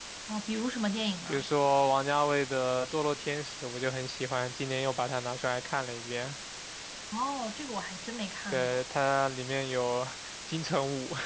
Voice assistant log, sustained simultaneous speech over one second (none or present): none